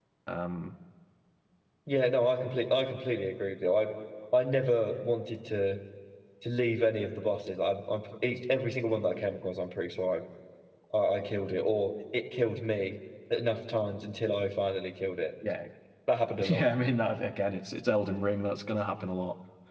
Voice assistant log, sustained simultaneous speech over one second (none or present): none